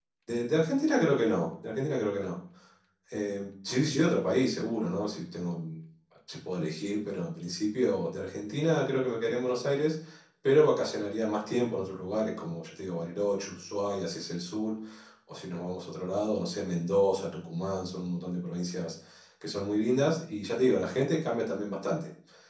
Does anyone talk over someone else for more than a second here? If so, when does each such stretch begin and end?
none

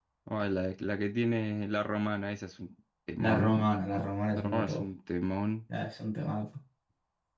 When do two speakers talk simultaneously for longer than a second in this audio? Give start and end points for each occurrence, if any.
none

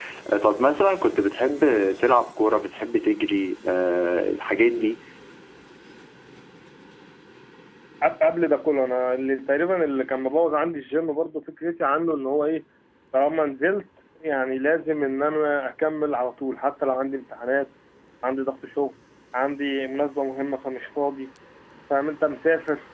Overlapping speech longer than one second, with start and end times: none

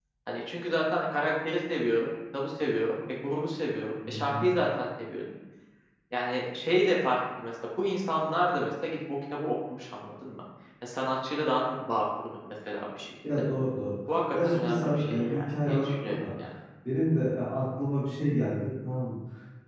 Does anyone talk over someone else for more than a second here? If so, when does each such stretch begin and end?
14.3-16.3

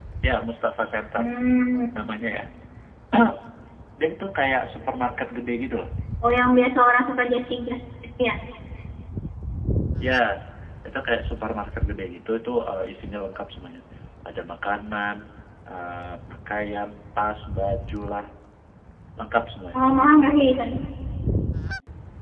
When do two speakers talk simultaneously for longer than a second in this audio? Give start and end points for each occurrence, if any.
none

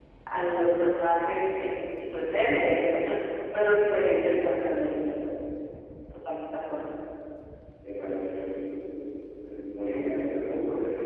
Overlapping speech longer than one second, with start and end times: none

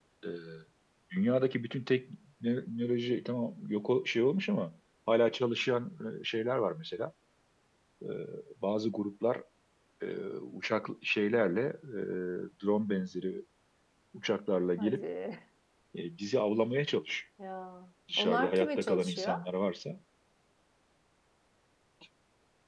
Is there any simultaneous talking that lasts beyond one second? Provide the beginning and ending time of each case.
18.2-19.4

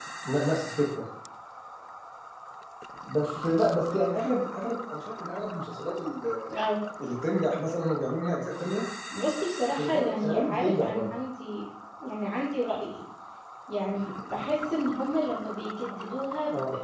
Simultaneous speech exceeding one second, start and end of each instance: 9.8-11.2

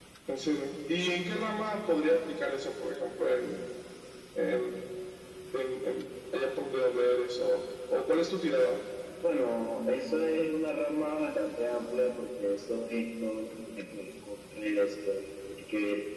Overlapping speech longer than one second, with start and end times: none

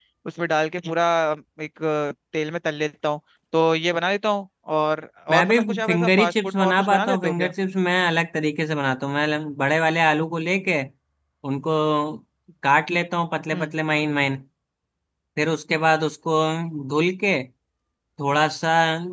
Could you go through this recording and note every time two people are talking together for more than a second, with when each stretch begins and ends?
5.3-7.5

